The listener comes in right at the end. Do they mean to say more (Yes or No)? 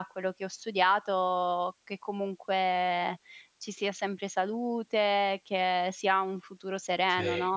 Yes